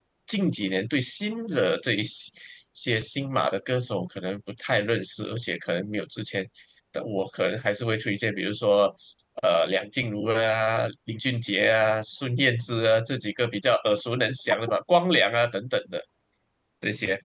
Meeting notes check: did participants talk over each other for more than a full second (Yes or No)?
No